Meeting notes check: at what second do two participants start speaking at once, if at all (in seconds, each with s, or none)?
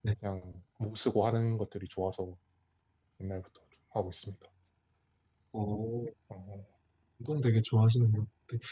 none